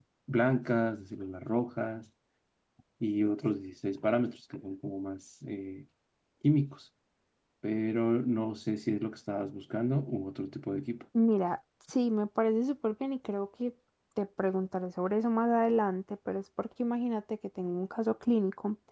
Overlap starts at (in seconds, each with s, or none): none